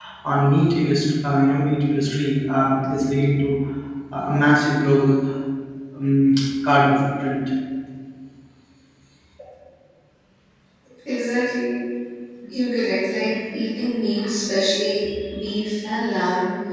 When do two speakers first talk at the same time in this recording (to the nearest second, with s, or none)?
none